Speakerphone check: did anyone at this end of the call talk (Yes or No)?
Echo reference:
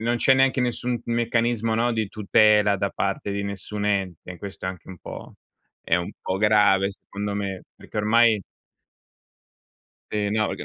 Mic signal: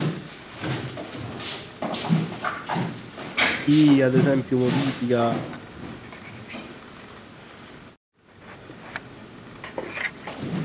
Yes